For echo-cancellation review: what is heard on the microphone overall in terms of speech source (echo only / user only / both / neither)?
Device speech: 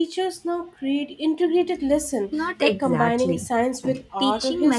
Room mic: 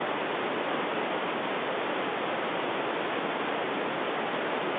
neither